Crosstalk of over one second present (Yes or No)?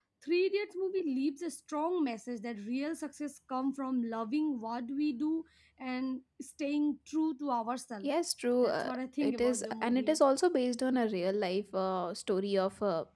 Yes